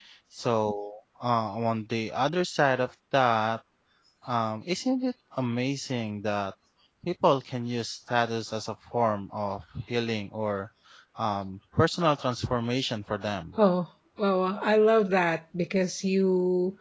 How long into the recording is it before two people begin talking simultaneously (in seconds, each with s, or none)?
none